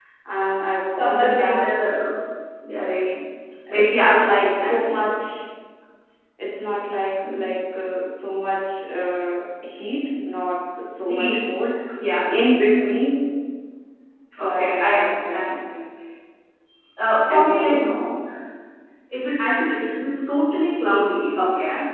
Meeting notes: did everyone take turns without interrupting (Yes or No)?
No